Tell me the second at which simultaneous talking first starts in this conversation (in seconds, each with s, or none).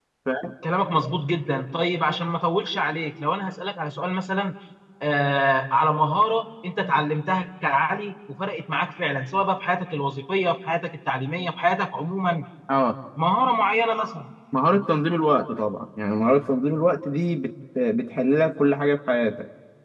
none